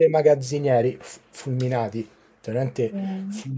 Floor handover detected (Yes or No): No